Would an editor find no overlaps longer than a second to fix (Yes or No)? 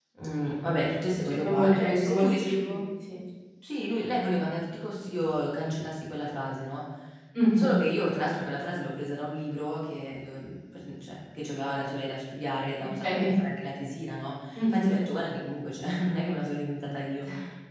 No